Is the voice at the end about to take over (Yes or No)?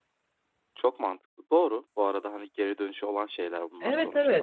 Yes